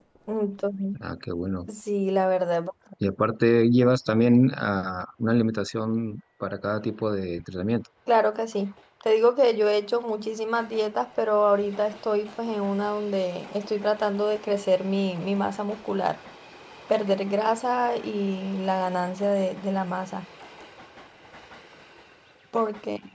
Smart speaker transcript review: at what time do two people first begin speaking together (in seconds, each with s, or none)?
none